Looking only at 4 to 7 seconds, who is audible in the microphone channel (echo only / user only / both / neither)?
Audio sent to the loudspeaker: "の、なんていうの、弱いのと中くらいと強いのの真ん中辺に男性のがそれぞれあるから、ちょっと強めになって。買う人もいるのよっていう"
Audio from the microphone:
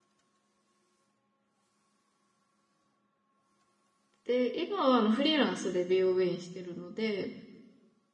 user only